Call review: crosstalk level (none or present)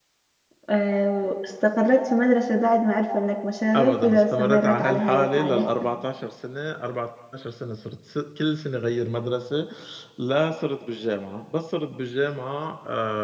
present